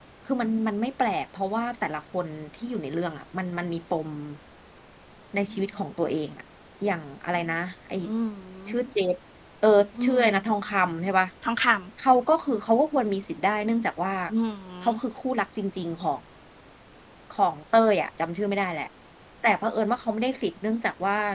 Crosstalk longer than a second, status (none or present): none